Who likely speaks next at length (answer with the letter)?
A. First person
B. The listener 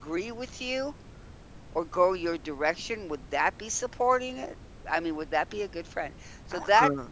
A